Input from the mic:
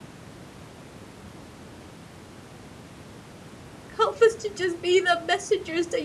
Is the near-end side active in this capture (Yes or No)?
Yes